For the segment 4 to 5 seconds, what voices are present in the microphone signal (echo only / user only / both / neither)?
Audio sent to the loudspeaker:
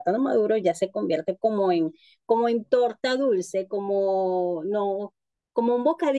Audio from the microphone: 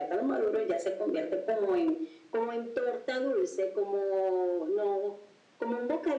echo only